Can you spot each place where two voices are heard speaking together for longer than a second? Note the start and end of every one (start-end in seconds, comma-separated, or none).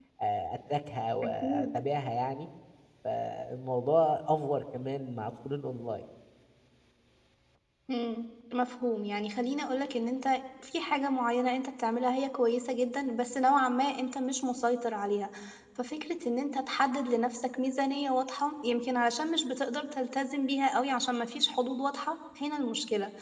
none